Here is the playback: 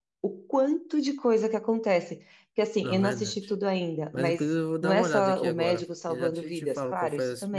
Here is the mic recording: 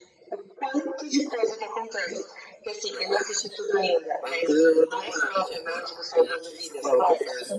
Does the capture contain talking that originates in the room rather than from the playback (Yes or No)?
No